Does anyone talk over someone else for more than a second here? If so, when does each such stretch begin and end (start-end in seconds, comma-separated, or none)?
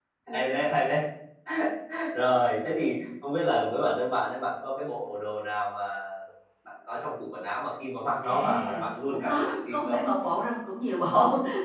8.2-10.0